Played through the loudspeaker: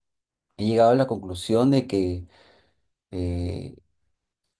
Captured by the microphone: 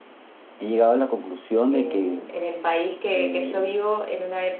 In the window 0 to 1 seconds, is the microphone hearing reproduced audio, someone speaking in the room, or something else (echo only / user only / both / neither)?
echo only